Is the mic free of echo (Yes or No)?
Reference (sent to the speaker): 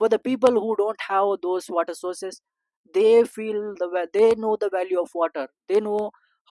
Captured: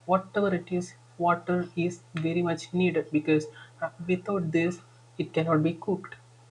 Yes